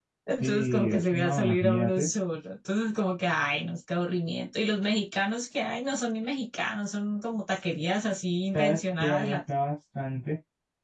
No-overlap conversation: No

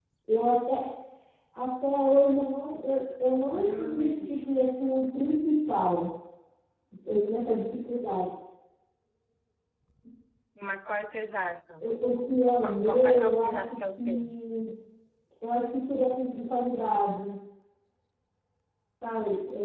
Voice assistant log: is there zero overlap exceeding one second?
No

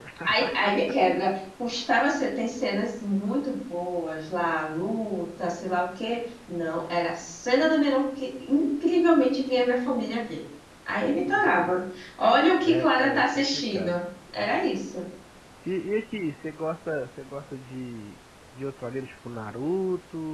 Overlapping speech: Yes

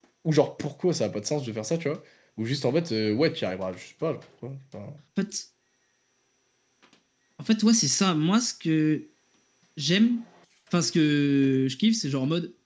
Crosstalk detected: No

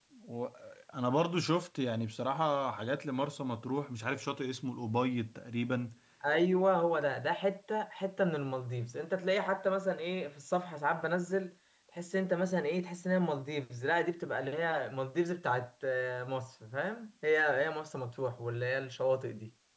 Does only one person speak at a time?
Yes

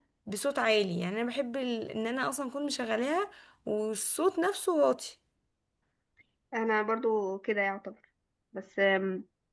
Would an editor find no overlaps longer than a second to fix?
Yes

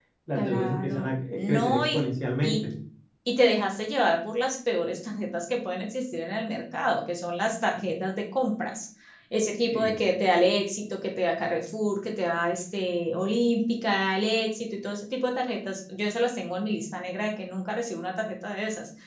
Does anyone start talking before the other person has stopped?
Yes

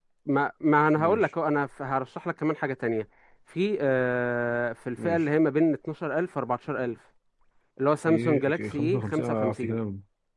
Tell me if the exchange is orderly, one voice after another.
No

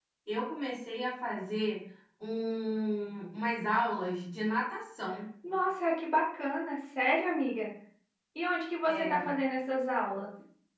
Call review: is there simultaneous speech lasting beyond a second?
No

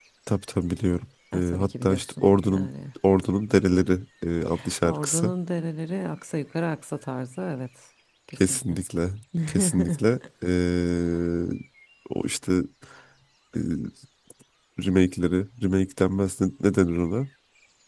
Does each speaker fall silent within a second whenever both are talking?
No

